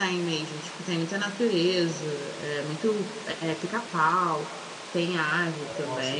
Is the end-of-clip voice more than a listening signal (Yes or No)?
No